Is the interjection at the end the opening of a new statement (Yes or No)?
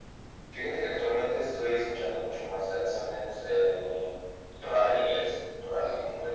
No